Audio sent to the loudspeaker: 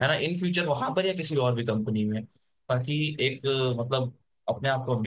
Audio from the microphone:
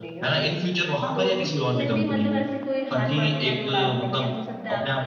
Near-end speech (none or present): present